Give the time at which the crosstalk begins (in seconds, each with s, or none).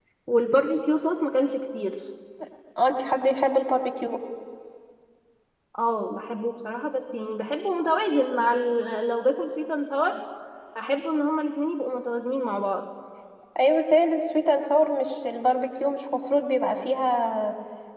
none